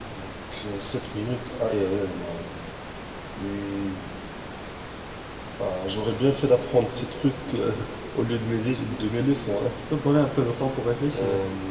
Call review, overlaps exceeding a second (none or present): none